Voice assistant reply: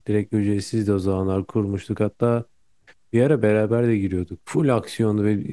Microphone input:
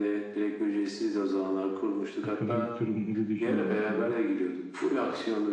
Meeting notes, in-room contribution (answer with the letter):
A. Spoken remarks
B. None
A